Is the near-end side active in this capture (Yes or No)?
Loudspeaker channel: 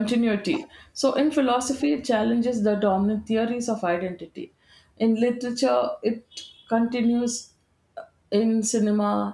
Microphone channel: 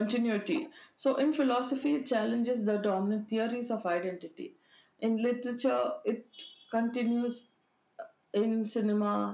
No